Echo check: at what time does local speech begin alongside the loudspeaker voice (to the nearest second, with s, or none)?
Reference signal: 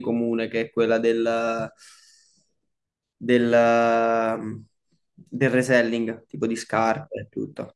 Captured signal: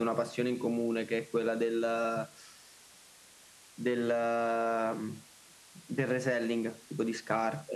none